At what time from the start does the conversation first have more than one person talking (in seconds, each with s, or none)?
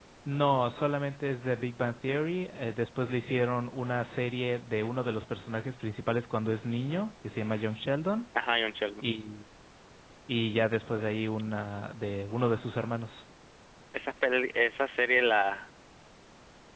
none